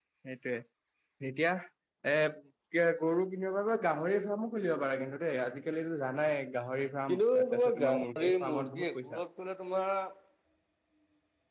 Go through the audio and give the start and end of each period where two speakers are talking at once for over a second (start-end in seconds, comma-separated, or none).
7.1-9.2